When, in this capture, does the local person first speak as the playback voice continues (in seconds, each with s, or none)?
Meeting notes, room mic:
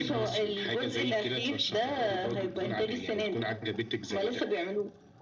none